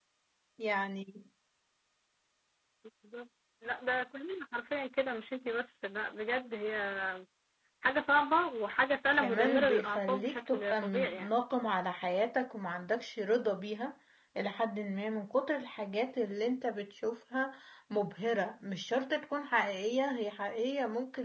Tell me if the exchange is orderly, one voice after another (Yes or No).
No